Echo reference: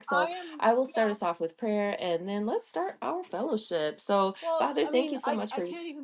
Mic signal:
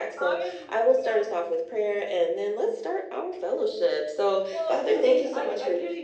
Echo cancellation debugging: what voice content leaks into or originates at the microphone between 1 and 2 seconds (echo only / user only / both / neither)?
echo only